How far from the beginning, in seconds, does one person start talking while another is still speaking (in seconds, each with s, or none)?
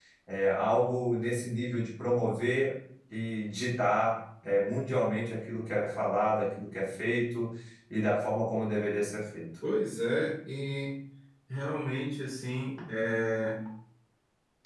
none